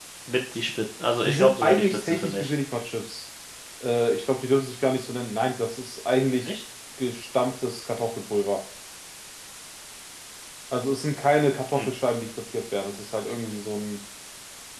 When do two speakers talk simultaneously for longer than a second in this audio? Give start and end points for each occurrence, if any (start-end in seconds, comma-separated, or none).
1.2-2.5